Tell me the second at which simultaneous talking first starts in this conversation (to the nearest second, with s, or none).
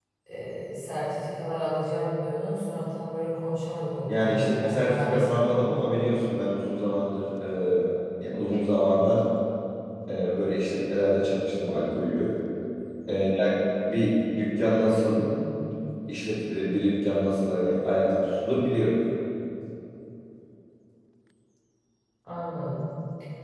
4 s